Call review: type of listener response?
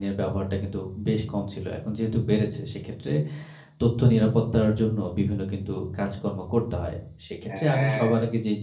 listening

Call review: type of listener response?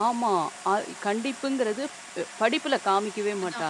taking over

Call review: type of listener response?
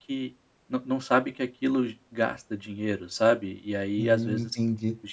taking over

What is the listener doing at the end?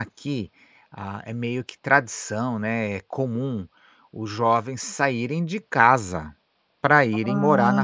taking over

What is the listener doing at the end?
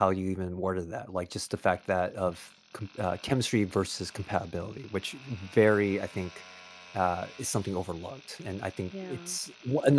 listening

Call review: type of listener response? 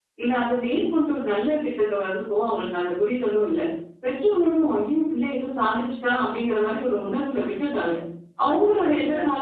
listening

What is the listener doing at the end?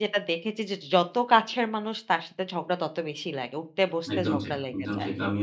taking over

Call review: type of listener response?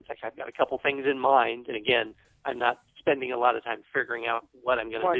taking over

